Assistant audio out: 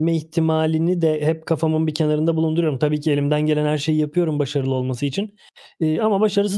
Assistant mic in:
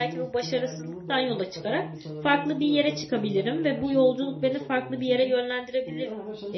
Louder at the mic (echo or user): user